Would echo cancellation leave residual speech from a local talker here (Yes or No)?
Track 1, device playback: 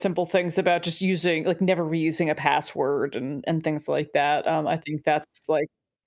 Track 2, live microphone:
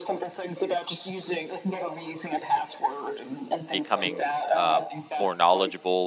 Yes